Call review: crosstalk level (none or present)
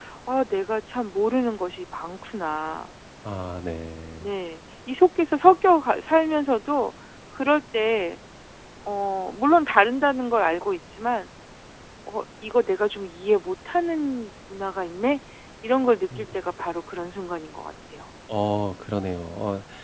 none